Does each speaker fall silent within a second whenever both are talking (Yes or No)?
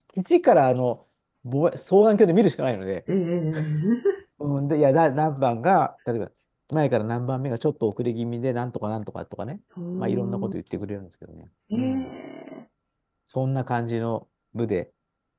Yes